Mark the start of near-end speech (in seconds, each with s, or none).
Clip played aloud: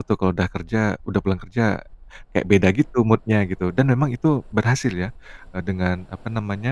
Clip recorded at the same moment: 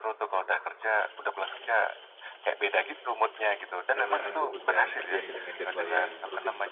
3.9 s